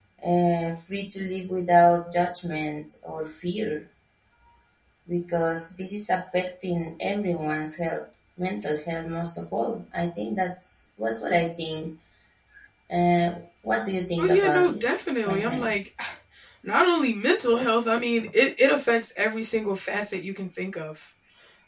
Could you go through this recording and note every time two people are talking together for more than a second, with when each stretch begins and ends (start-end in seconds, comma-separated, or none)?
14.2-15.8